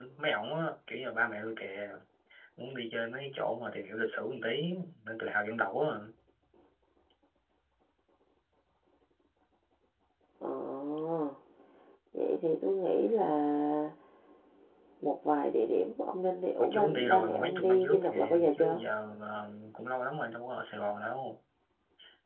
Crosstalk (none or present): present